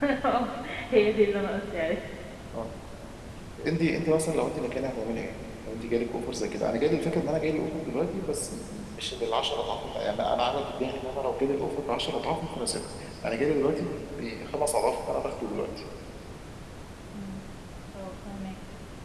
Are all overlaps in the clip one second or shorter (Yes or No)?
Yes